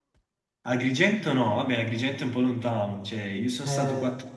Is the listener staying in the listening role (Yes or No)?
Yes